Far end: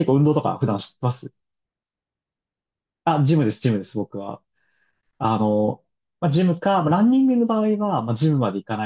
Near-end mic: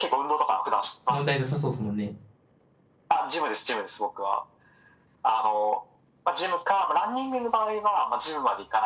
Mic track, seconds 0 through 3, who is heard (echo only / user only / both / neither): both